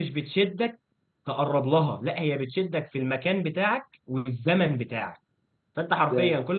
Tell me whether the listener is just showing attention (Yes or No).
Yes